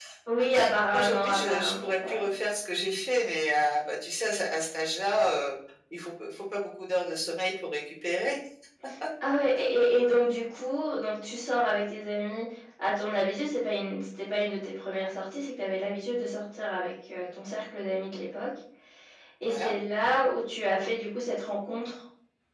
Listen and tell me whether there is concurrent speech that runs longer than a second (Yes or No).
Yes